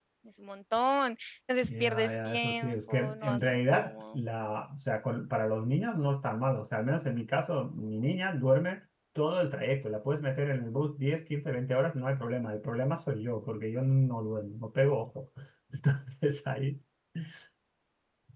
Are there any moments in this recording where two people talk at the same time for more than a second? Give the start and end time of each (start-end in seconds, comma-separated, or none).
1.7-4.2